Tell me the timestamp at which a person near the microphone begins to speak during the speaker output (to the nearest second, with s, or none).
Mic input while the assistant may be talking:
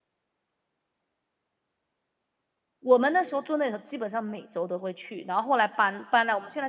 3 s